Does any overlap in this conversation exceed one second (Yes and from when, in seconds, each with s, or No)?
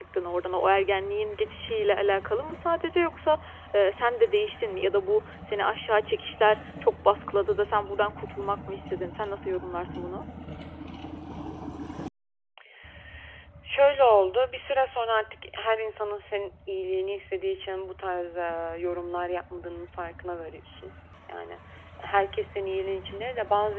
No